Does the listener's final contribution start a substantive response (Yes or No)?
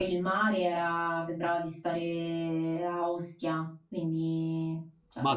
No